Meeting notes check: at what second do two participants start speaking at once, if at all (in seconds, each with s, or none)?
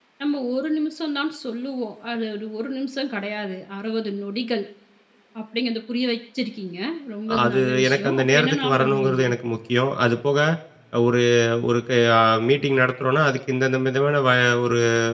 7.3 s